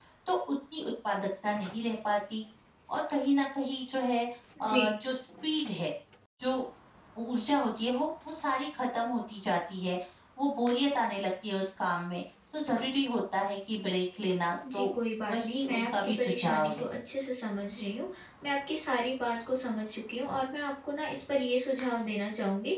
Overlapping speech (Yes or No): Yes